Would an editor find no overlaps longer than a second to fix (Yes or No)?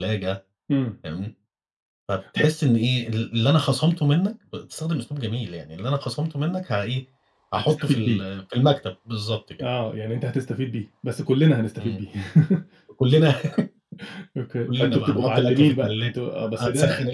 No